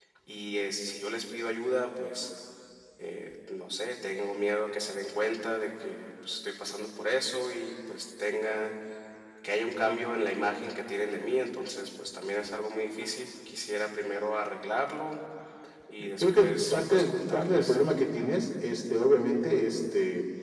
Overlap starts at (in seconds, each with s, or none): 16.2 s